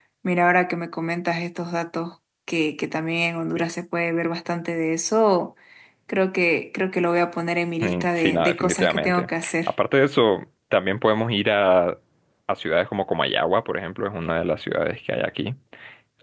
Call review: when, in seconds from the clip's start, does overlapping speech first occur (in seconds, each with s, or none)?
7.8 s